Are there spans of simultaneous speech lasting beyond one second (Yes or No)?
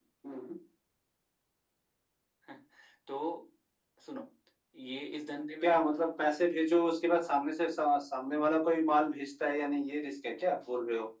No